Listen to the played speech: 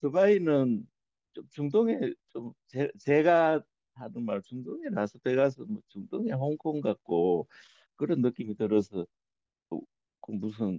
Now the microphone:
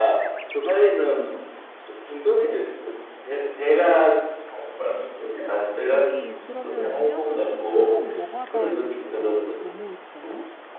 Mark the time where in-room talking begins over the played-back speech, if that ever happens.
5.8 s

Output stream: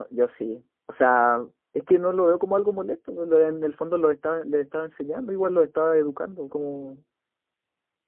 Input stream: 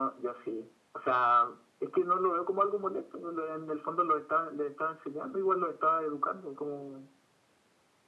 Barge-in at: none

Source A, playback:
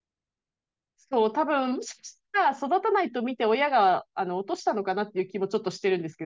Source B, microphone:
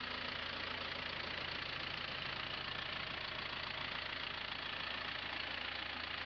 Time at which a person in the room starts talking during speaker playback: none

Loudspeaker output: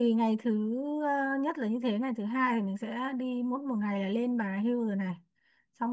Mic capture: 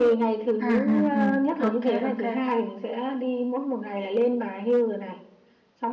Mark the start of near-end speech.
0.6 s

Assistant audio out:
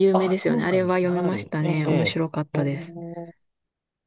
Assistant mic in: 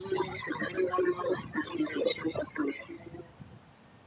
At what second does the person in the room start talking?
none

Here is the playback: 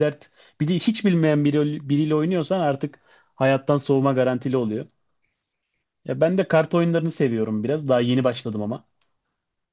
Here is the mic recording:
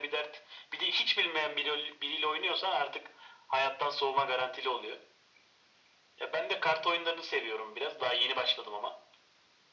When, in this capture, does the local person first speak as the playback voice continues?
none

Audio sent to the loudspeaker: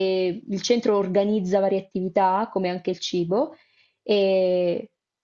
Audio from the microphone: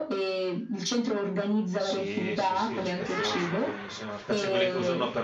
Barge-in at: 1.7 s

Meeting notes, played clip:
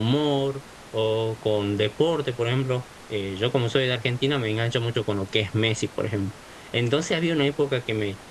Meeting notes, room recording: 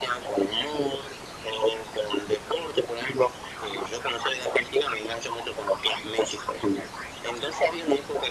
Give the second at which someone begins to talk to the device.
none

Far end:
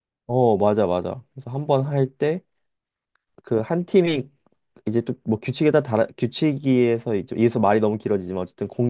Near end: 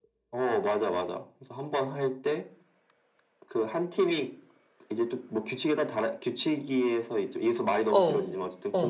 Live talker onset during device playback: 7.8 s

